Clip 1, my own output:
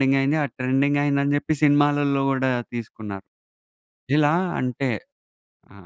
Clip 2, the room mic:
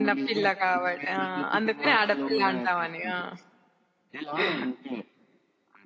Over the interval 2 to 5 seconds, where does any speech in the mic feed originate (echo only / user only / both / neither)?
both